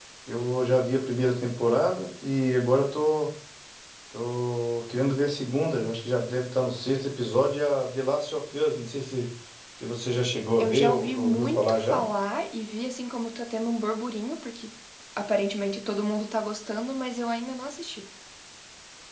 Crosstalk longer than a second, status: present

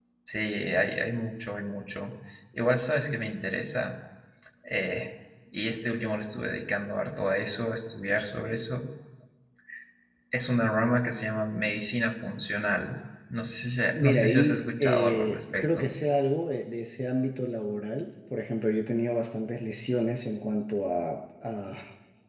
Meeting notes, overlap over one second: present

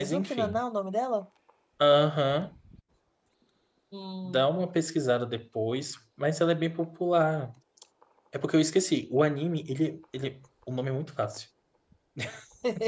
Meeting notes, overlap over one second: none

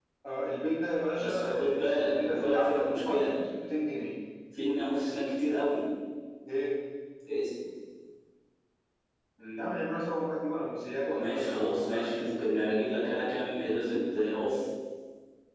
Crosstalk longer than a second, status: present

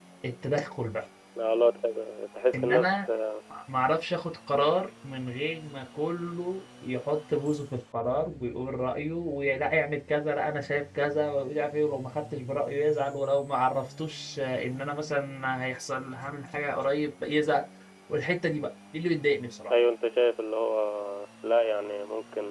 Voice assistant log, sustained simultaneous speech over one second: none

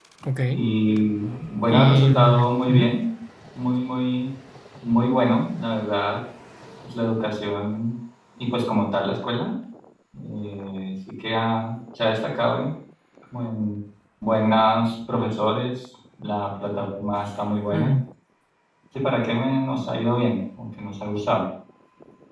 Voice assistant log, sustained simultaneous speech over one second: present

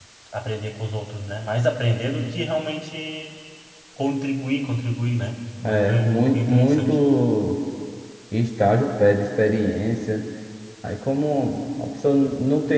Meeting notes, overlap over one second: present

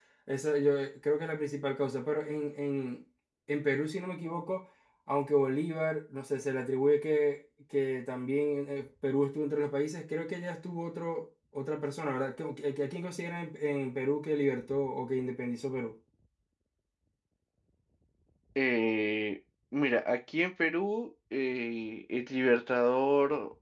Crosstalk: none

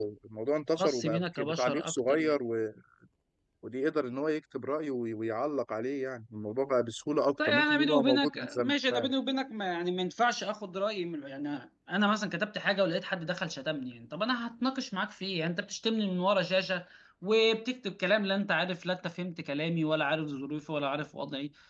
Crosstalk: present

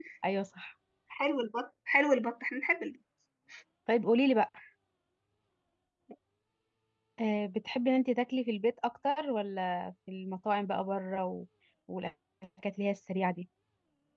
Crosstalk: none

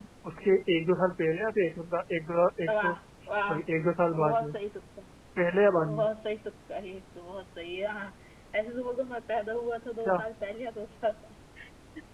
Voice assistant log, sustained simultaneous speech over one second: none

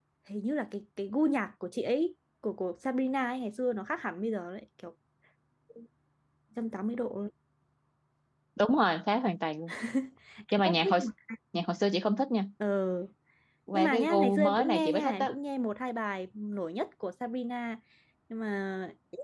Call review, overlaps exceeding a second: present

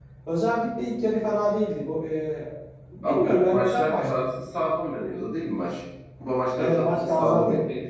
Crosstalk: present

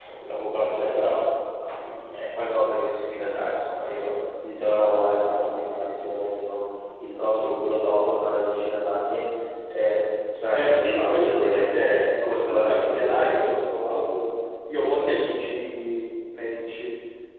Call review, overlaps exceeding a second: present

